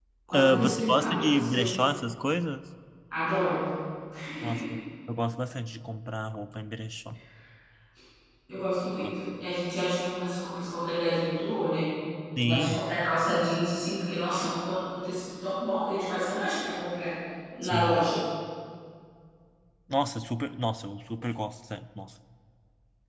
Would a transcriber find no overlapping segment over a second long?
No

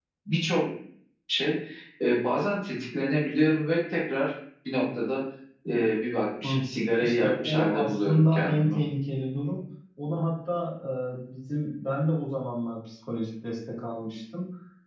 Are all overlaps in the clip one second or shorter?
No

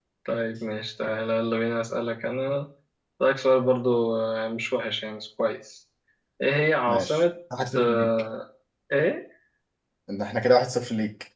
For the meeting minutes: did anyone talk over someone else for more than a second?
No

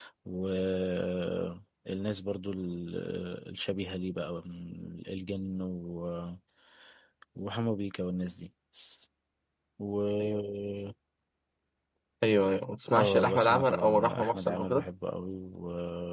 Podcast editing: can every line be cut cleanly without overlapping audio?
No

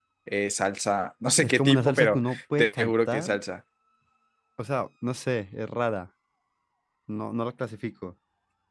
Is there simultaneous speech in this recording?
Yes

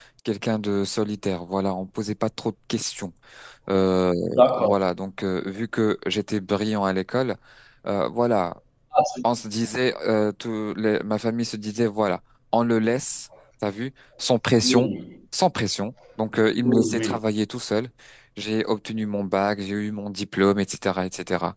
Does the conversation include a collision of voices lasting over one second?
No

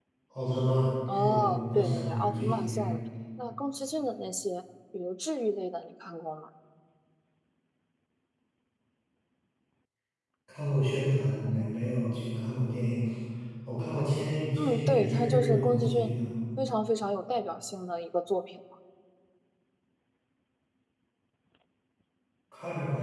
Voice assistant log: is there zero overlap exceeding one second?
No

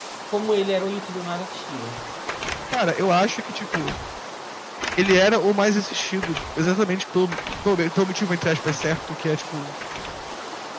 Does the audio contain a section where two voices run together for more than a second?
No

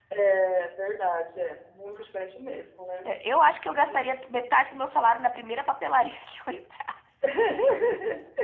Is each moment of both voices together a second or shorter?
Yes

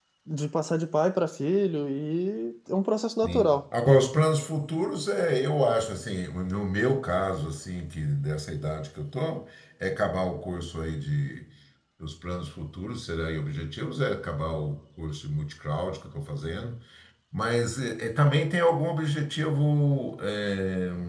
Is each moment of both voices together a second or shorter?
Yes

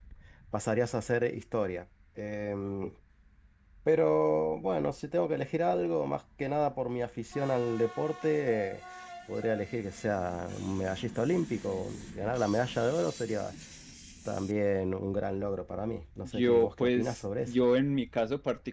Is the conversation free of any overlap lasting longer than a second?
No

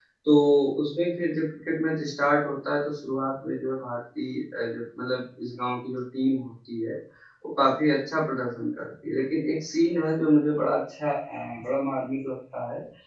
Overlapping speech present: No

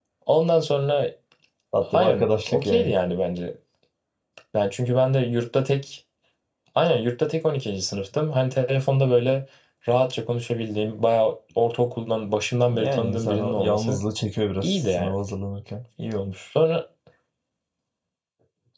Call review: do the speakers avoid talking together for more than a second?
No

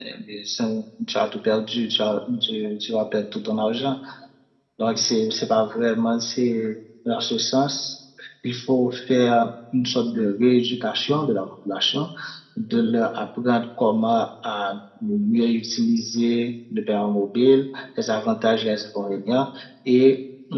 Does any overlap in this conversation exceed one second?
No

